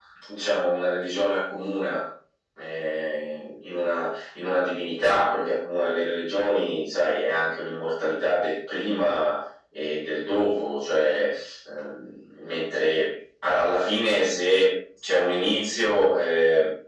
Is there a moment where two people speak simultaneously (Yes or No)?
No